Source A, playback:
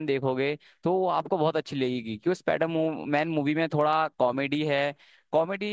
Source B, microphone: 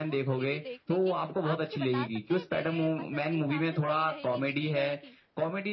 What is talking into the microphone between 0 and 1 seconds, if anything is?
both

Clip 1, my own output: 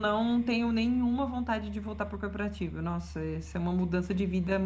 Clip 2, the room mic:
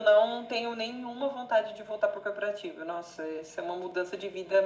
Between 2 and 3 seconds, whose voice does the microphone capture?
echo only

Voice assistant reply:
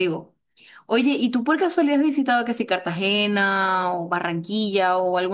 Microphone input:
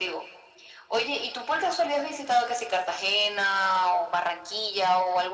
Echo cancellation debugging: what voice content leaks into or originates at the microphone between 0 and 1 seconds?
echo only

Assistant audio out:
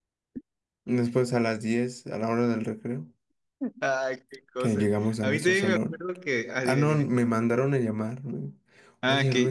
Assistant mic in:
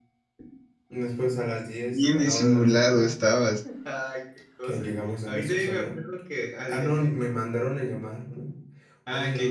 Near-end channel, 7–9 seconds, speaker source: echo only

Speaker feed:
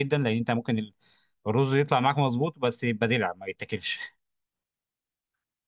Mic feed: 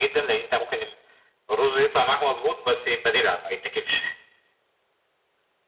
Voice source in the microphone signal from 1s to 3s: echo only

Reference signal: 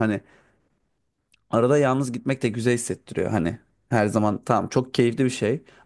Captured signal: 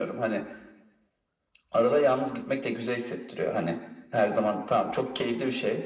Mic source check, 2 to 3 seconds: echo only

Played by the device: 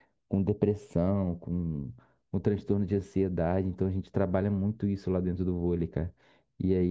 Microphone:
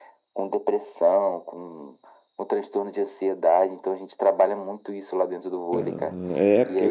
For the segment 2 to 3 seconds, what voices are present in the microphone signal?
echo only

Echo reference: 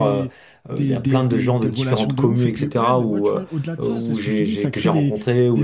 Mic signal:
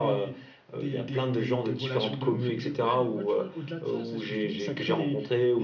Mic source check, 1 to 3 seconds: echo only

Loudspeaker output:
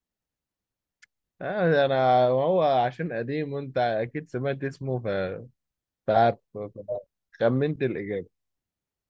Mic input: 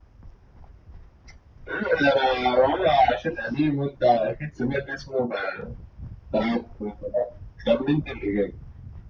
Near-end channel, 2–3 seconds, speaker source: echo only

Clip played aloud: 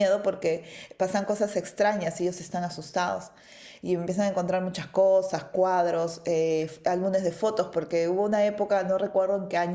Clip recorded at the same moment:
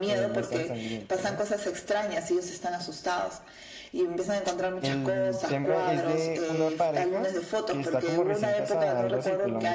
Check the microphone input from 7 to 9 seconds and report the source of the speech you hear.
both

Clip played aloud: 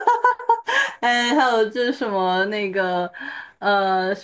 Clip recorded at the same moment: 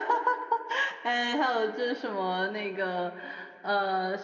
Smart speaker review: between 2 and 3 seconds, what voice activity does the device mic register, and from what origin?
echo only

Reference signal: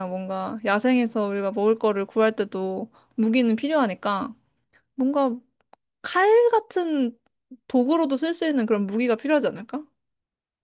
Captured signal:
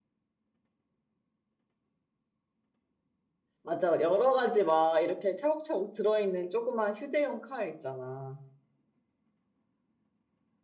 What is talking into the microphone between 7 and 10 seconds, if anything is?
user only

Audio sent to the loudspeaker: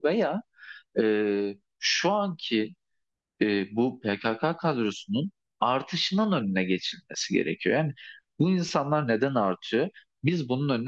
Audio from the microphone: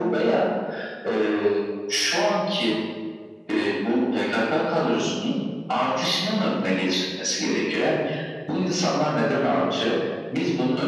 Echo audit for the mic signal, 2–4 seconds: echo only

